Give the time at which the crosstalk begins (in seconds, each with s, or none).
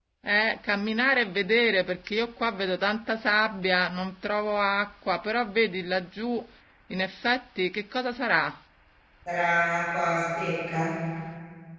none